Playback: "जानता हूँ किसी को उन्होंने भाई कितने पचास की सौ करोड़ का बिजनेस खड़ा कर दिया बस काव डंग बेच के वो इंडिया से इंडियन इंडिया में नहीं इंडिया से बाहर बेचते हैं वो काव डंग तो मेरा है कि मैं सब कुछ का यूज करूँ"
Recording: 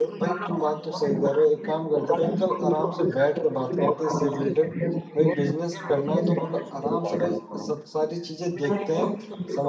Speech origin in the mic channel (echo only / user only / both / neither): both